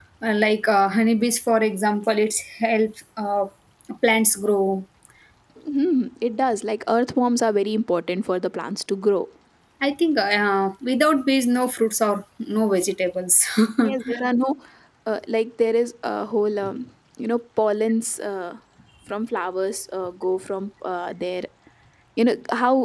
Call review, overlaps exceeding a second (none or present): none